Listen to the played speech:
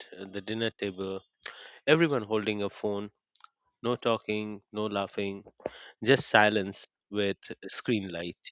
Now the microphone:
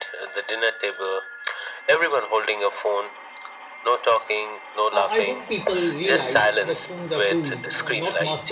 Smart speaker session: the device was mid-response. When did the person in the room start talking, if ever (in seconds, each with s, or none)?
4.9 s